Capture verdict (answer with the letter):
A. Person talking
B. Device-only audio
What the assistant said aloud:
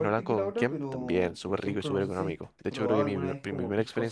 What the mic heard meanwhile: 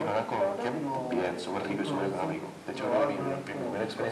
B